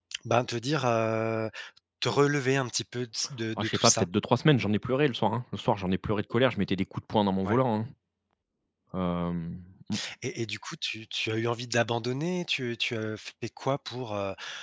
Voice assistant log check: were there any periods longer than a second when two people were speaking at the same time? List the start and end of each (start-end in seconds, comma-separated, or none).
none